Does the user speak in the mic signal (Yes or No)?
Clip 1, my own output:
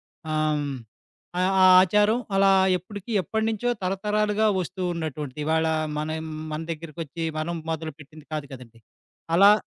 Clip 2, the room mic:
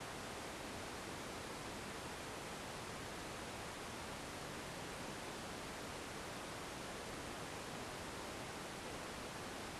No